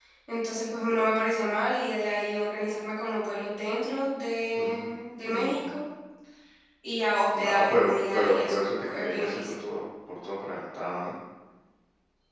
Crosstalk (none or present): present